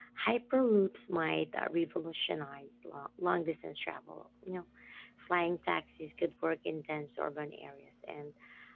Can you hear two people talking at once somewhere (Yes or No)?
No